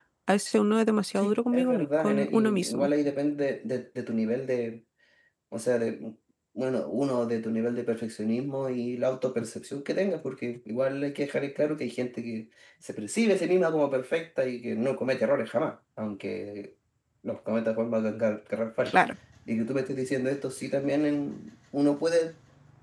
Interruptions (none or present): present